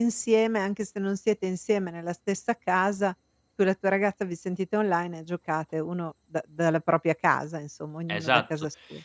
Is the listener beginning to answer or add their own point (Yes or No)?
Yes